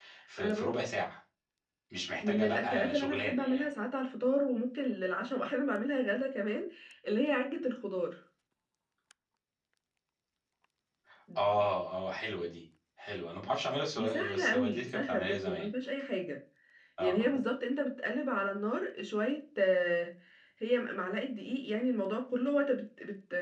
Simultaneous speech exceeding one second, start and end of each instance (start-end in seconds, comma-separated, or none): 2.2-3.7, 14.0-15.7